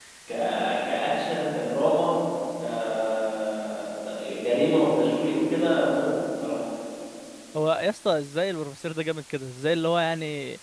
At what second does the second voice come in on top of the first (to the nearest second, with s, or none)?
none